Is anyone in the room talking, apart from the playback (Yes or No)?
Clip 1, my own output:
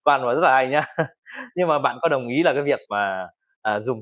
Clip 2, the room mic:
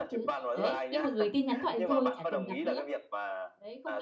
Yes